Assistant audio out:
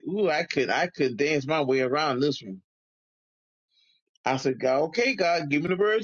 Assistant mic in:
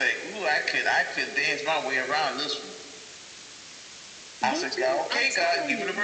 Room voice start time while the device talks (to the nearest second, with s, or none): 4 s